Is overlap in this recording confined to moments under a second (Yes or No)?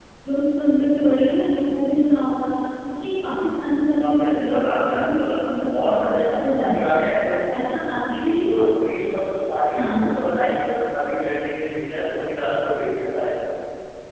No